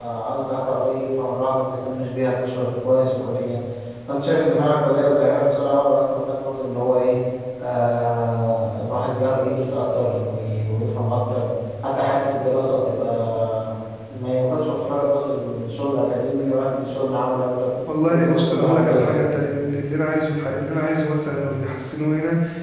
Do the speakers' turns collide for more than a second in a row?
Yes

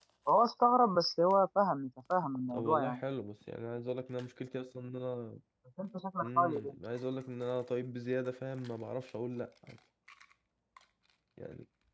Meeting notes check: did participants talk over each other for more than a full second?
No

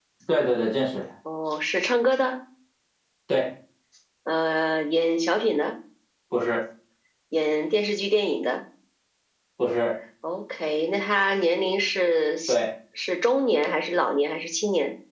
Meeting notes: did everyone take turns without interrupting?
Yes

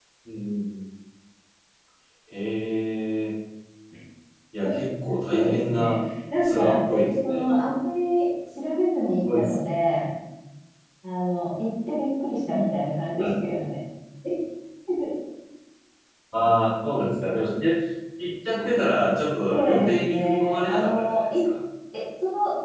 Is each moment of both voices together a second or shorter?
No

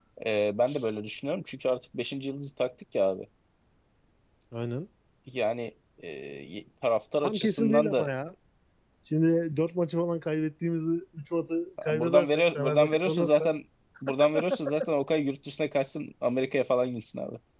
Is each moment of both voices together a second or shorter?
No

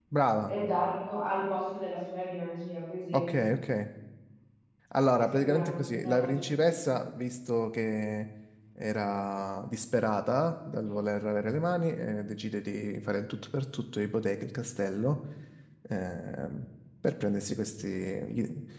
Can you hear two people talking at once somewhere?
Yes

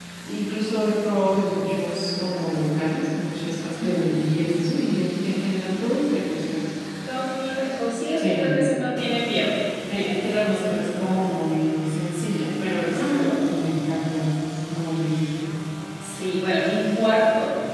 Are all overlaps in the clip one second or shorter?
No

